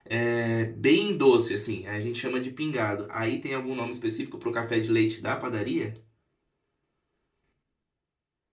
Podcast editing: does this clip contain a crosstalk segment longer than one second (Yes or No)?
No